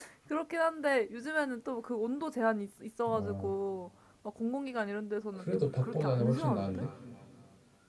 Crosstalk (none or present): present